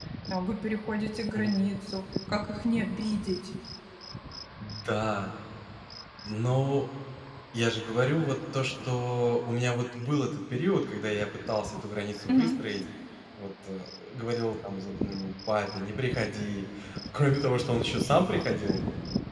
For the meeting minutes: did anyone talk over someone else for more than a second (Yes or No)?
No